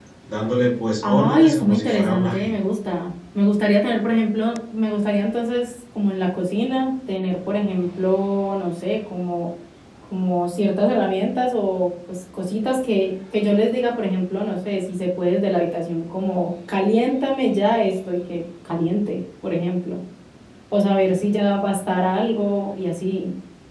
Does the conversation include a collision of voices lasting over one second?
Yes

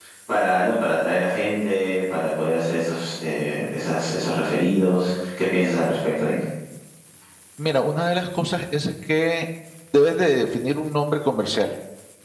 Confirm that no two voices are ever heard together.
Yes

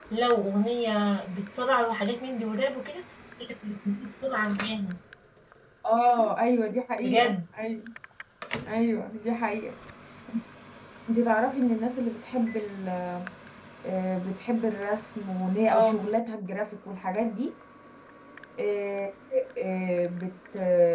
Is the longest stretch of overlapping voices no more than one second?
Yes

